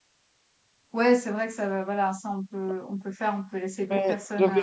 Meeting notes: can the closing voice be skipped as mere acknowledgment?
No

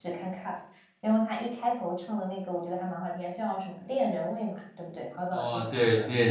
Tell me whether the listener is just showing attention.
No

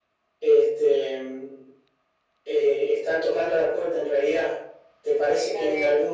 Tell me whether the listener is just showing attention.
Yes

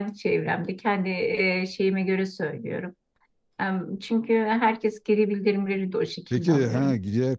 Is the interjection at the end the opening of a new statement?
Yes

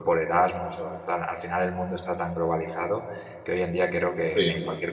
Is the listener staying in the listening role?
Yes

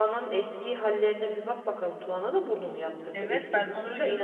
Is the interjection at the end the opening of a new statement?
Yes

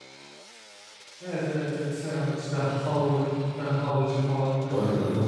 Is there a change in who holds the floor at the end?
Yes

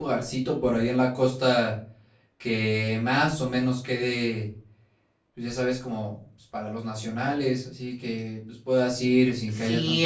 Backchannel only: No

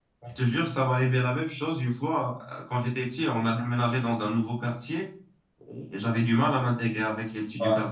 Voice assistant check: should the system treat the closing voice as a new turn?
No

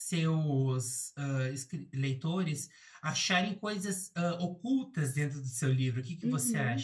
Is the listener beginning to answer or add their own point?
Yes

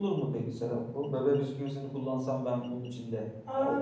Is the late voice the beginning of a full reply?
Yes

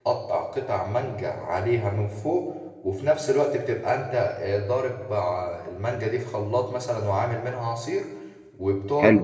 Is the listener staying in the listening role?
Yes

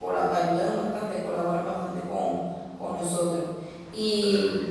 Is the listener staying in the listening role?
Yes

